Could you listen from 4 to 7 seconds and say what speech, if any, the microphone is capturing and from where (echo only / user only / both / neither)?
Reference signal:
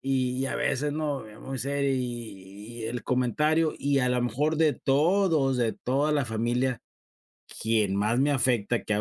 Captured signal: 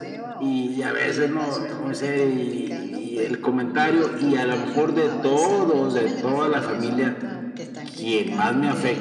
both